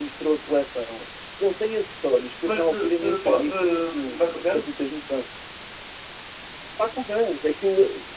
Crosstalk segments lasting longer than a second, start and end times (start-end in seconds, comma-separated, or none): 2.5-4.7